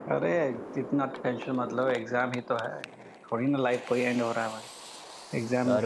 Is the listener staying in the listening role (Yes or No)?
Yes